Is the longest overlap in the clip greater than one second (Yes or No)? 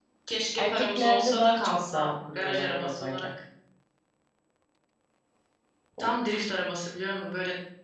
Yes